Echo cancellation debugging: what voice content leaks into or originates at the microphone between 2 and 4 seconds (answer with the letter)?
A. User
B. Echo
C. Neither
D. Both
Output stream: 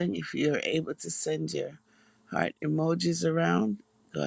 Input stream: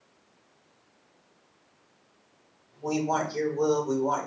A